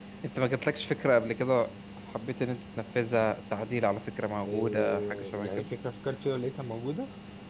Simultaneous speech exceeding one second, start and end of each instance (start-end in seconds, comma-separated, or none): 4.5-5.7